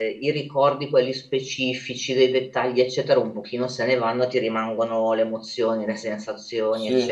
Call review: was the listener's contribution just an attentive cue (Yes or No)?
Yes